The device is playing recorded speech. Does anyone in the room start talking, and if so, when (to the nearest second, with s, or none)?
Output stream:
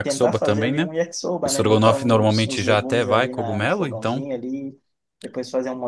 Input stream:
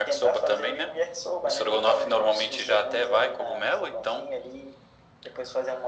none